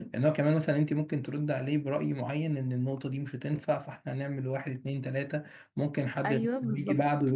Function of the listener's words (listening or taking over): listening